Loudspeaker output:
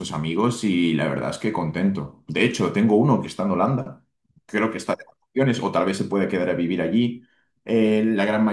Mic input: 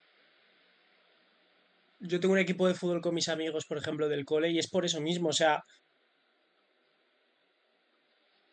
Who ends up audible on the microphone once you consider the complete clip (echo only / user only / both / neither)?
user only